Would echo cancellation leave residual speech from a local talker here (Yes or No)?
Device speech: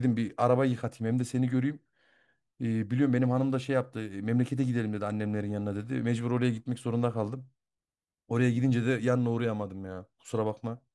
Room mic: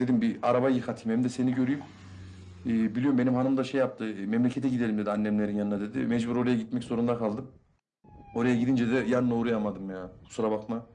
No